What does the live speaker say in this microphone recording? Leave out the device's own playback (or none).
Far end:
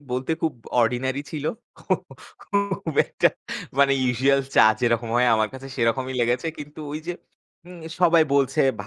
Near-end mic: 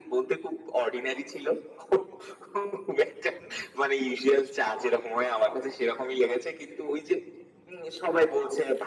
none